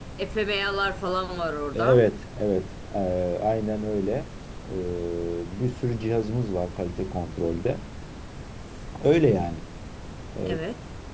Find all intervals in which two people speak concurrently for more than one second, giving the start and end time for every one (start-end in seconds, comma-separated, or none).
none